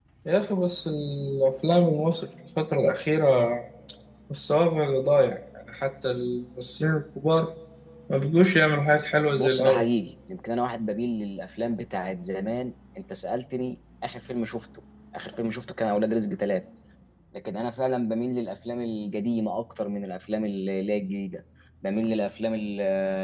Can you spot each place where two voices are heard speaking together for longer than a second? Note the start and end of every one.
none

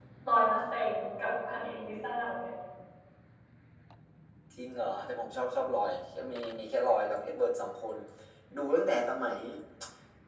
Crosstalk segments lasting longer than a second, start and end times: none

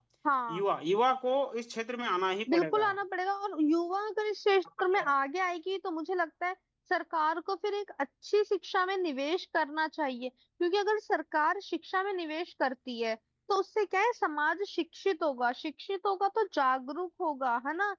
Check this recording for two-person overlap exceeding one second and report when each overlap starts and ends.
none

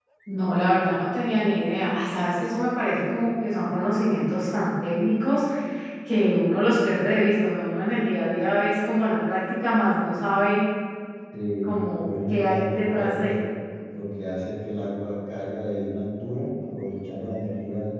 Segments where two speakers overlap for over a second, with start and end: 11.6-13.3

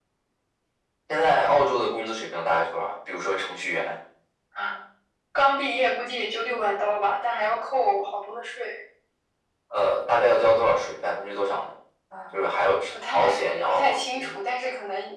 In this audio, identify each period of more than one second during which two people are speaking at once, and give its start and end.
12.9-14.4

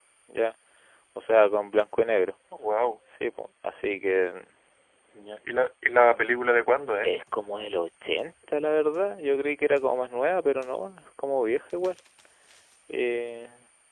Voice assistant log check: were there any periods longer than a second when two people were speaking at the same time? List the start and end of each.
none

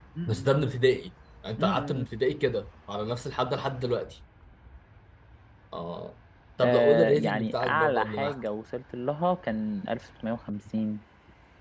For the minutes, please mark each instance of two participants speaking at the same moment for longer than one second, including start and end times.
6.6-8.4

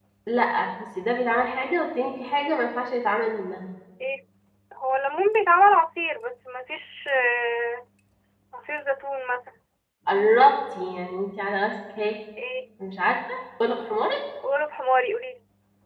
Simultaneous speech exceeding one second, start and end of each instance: none

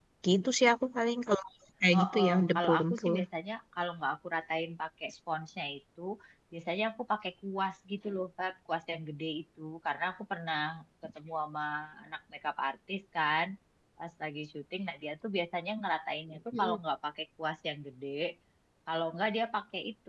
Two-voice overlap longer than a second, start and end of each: 1.9-3.1

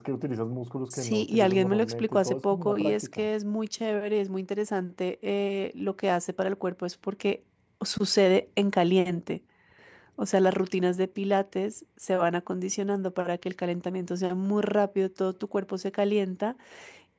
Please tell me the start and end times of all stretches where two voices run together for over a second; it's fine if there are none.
0.9-3.3

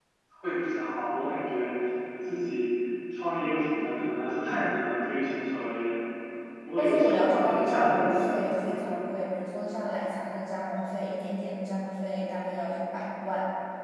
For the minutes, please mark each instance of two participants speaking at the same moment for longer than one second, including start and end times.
6.8-9.0

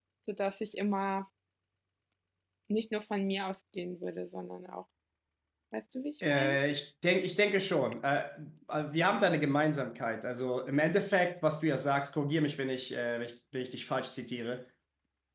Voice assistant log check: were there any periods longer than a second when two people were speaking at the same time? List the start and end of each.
none

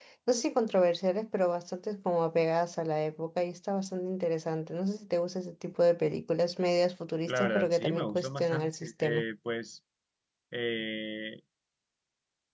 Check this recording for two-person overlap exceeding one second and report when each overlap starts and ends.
7.3-9.2

